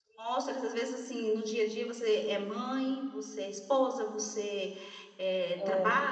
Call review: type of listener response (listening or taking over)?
listening